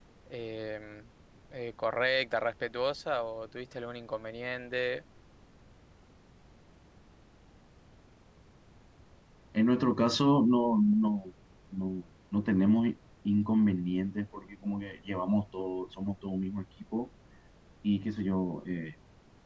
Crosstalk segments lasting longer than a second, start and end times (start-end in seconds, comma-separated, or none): none